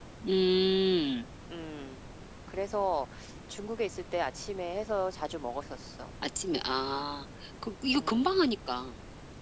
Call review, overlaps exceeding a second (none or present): none